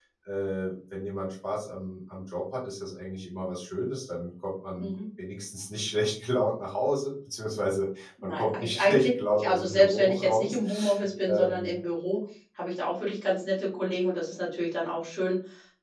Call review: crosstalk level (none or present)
present